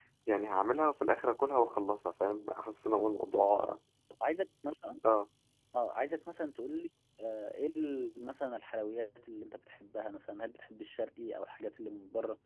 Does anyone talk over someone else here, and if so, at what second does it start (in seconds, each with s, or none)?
none